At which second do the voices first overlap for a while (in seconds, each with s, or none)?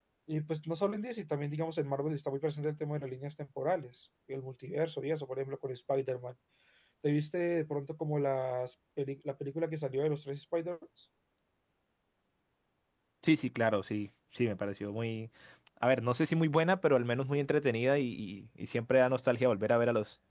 none